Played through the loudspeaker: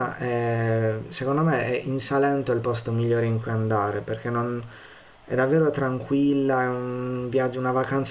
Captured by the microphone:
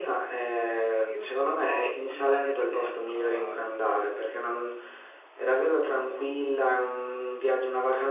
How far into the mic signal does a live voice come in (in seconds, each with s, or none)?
1.1 s